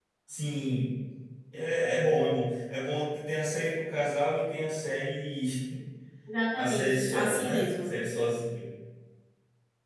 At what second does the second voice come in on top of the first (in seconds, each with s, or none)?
6.5 s